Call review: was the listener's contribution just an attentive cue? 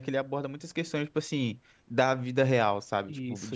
Yes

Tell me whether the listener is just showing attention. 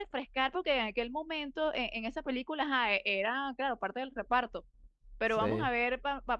Yes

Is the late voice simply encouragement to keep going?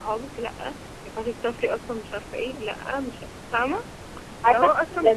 No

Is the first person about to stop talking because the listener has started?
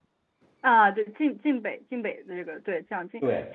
No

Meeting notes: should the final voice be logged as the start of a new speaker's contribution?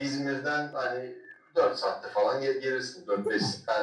No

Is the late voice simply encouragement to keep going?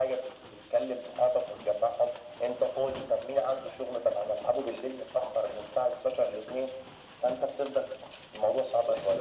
No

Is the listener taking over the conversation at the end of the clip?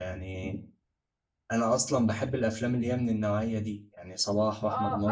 Yes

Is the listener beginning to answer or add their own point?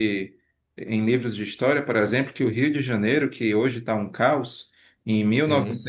No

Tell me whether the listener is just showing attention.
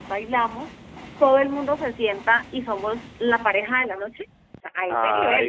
No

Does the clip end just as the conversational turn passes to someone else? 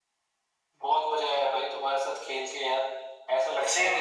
No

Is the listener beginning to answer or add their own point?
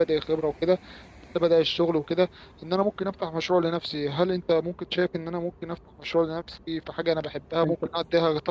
No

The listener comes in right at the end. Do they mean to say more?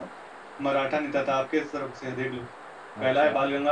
No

